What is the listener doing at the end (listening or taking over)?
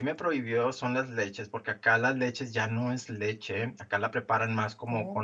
listening